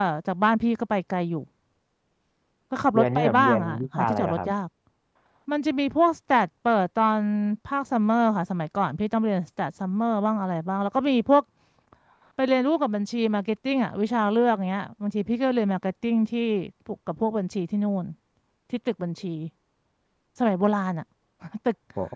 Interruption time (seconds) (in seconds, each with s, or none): 2.9 s